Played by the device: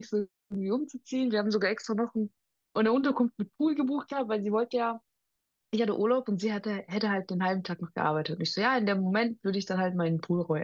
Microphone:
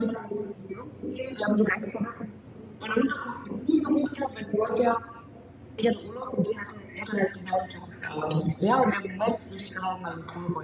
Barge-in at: none

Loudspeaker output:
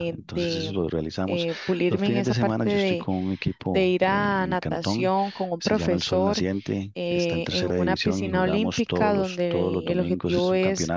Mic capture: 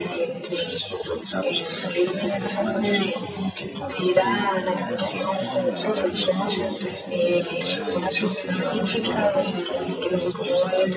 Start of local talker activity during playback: 4.1 s

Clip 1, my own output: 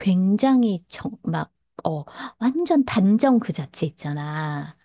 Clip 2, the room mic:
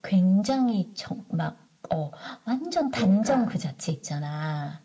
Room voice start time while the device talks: 2.9 s

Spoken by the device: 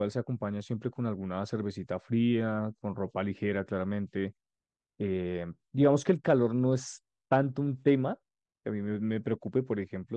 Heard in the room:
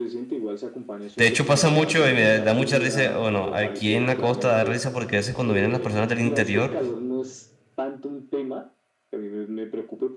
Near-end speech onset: 1.2 s

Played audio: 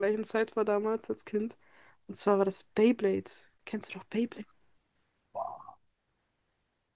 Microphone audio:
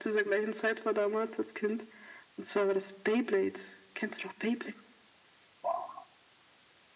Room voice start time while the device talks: none

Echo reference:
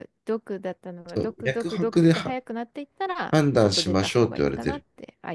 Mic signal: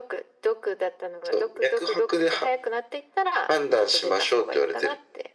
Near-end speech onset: none

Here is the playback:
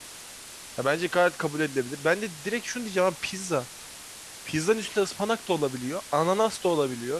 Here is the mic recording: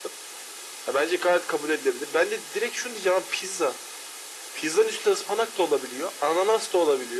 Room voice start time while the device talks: none

